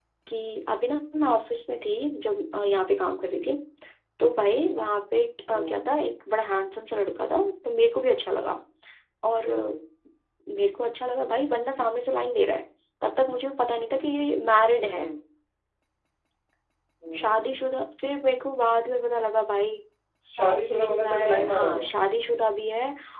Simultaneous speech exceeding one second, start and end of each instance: 20.4-21.9

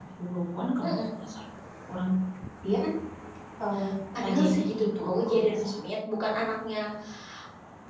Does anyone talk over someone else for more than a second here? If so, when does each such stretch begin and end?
4.2-5.8

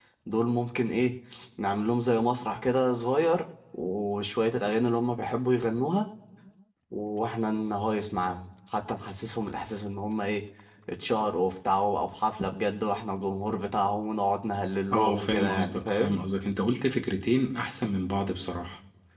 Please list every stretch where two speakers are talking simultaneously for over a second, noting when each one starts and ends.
14.9-16.1

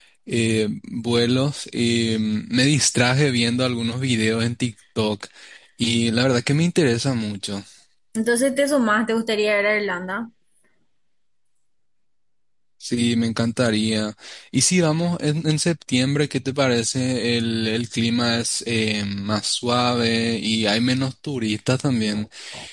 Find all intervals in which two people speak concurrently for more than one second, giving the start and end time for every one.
none

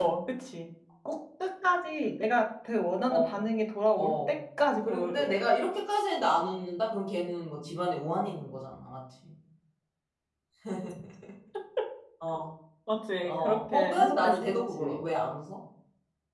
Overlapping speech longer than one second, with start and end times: 13.3-15.0

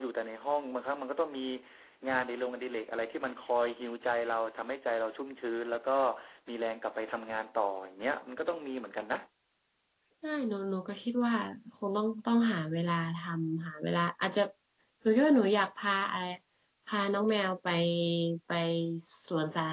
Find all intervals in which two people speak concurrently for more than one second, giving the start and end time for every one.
none

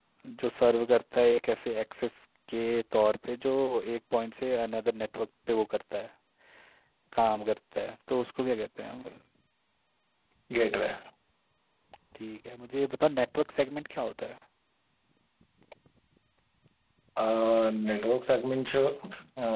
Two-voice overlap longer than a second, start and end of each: none

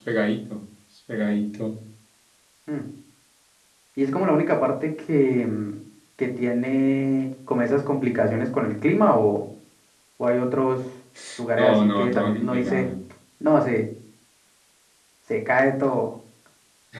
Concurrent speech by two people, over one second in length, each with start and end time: 11.6-12.9

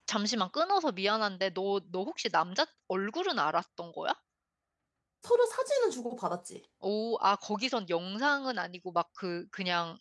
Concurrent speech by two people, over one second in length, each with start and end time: none

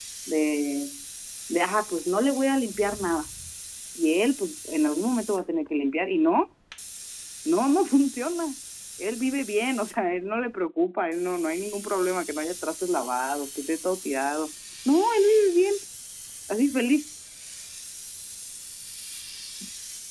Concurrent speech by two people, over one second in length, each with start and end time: none

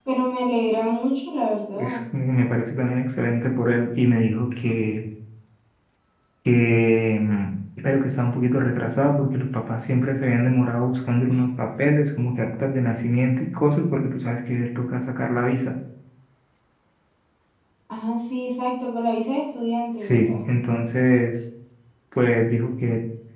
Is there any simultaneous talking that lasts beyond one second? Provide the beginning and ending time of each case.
none

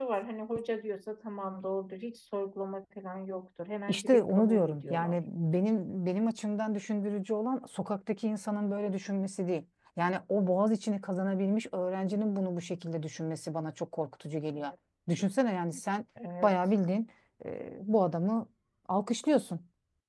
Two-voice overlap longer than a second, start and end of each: 3.9-5.2

